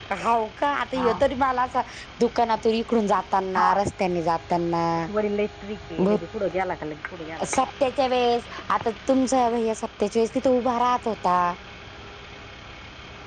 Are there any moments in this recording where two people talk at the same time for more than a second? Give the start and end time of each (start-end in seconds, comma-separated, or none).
none